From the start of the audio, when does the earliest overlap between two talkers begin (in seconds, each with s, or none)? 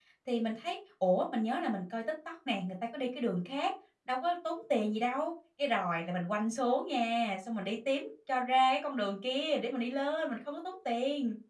none